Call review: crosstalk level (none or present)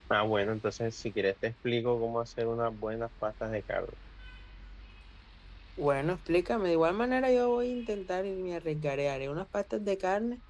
none